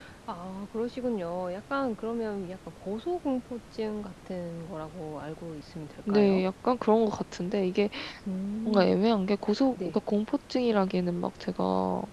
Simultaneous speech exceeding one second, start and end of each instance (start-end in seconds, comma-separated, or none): none